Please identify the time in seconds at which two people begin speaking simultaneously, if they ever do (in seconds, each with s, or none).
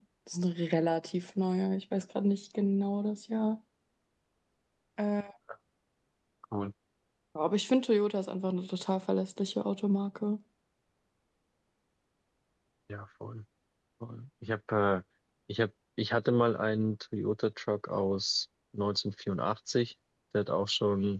none